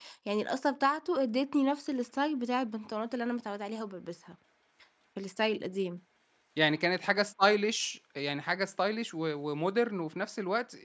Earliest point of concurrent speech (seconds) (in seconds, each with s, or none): none